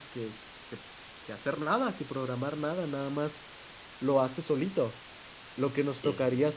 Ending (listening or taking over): listening